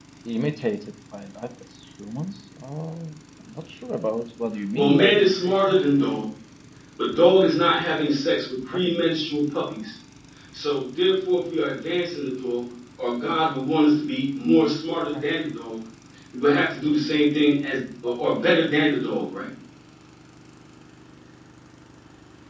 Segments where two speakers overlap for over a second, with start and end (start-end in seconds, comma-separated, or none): 4.7-6.1